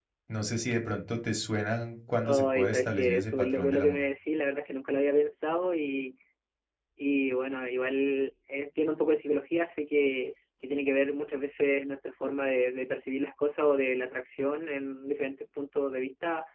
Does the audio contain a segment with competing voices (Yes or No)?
Yes